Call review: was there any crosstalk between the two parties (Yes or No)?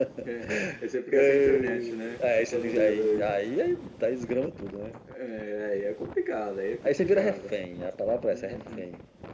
Yes